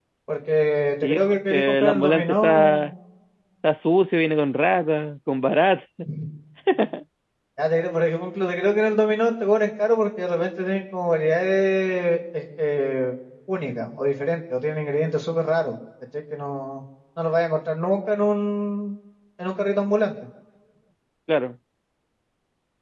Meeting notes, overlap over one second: present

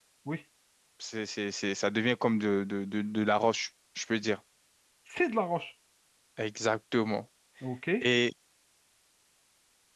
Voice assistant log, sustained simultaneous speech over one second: none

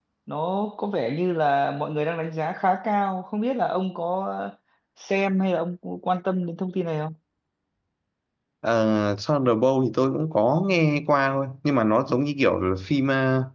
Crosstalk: none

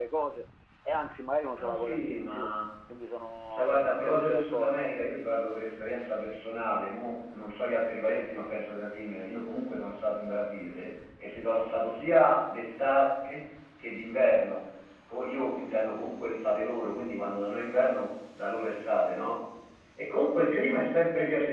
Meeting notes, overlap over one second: present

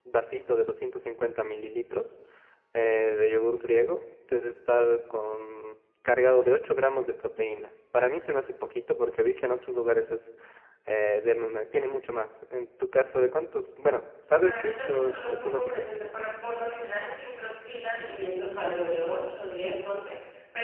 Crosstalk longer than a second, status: present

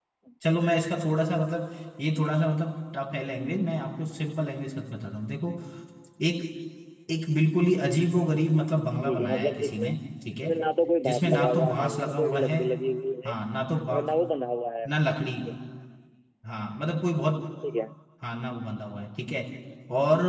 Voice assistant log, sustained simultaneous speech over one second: present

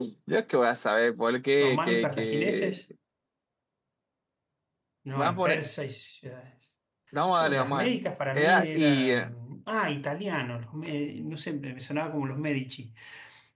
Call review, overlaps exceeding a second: present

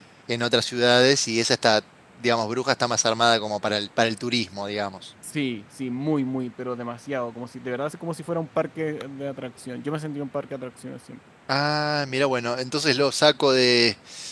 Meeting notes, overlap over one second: none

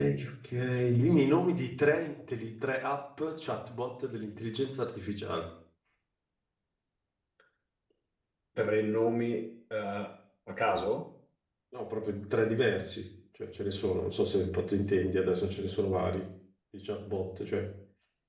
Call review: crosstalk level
none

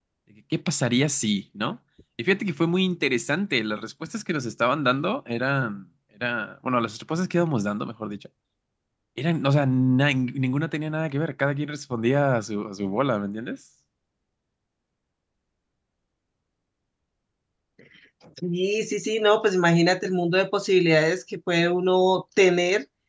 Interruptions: none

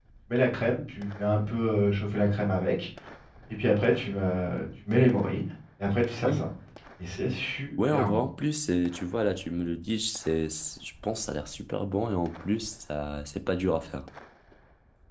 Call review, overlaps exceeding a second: none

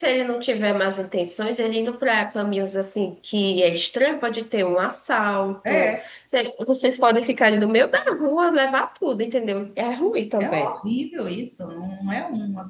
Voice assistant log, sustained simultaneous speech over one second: none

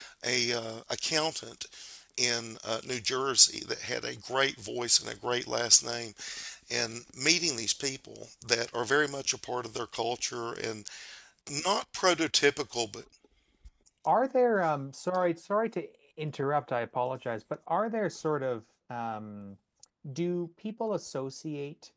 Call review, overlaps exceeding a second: none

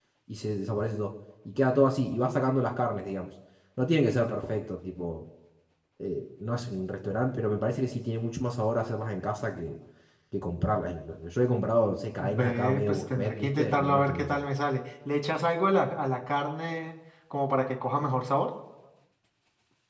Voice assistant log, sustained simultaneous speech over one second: present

